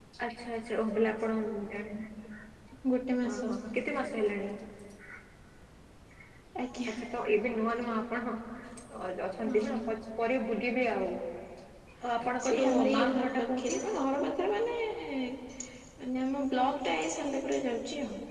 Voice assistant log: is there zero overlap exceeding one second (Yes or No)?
No